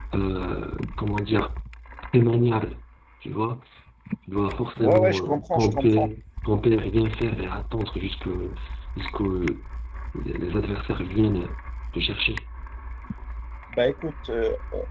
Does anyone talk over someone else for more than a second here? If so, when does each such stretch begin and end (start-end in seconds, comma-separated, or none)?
4.8-6.1